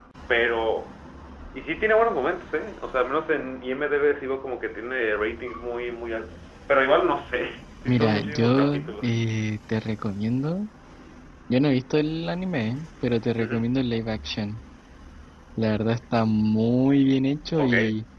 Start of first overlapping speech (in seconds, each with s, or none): 7.8 s